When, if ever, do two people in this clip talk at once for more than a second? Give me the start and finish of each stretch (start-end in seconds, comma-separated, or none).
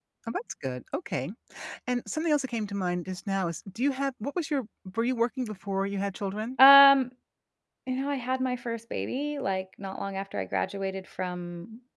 none